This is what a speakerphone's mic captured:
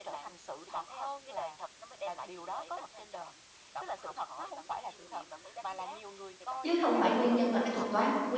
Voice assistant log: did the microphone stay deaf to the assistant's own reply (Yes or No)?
No